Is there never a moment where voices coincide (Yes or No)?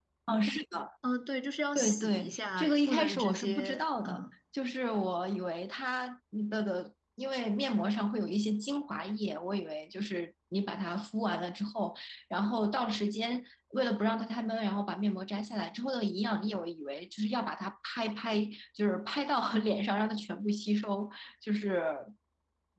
No